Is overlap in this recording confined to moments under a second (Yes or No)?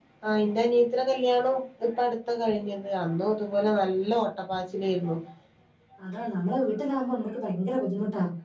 Yes